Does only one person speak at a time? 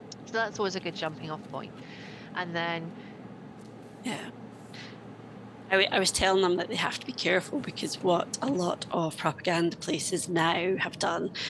Yes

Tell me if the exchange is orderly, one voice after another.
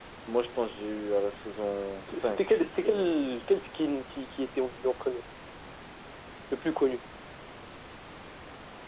No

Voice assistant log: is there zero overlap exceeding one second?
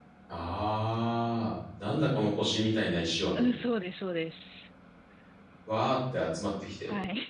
Yes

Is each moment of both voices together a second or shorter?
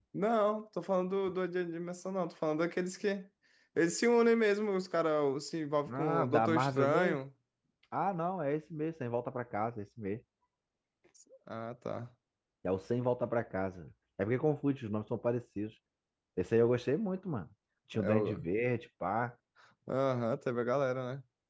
No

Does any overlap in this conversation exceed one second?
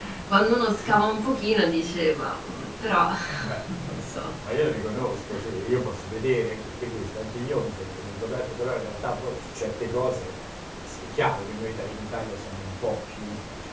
No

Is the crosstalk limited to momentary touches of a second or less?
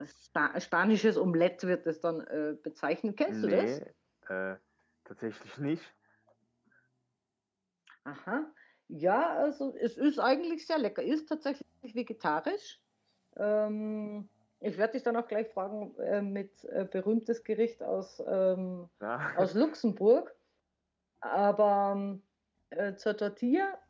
Yes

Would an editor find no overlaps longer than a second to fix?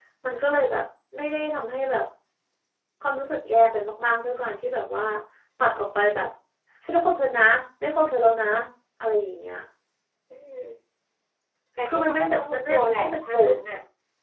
No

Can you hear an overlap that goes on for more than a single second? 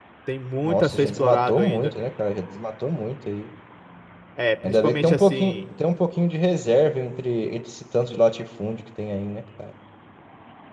Yes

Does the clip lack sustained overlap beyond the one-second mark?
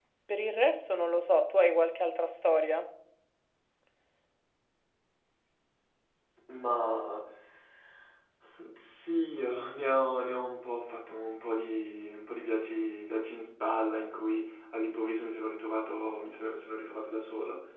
Yes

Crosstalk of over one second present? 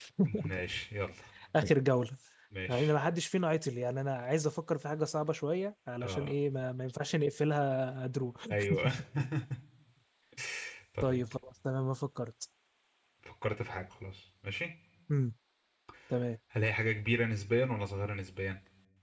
No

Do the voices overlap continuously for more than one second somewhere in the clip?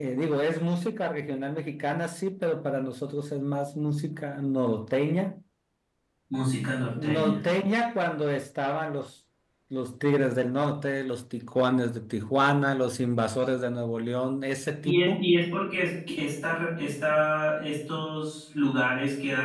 No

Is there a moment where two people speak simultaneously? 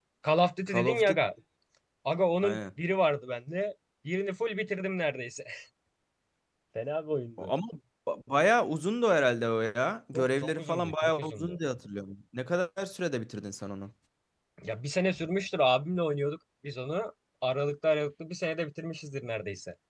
Yes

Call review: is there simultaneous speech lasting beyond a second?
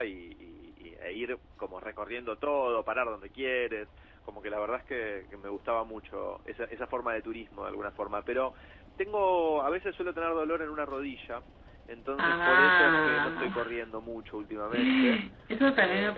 Yes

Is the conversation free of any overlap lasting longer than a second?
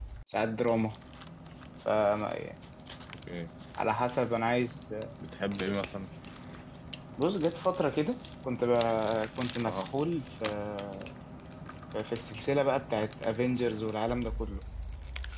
Yes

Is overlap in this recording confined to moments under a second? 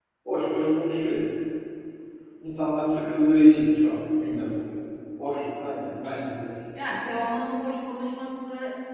Yes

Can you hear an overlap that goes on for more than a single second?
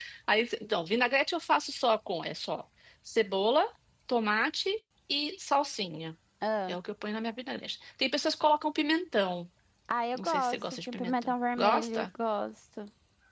Yes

